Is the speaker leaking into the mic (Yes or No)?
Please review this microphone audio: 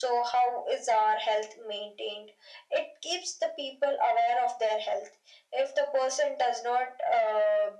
Yes